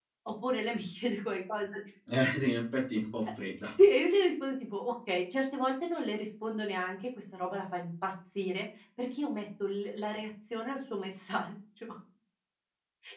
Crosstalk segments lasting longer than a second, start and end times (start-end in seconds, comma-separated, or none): none